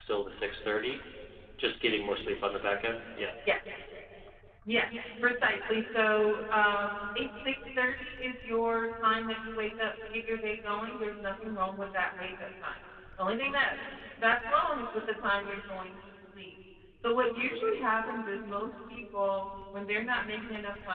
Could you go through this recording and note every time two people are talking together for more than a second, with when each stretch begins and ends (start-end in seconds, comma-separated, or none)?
none